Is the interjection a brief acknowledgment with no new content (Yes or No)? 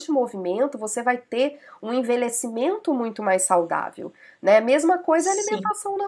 Yes